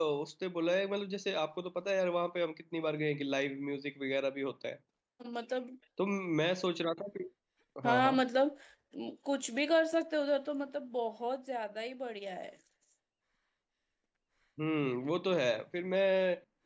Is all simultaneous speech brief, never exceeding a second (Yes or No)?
Yes